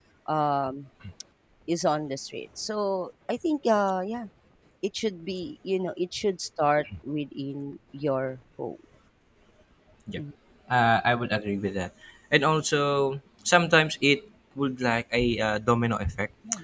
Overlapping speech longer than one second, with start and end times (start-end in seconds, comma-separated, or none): none